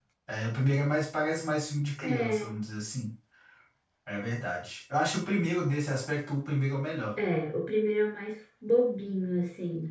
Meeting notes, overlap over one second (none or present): none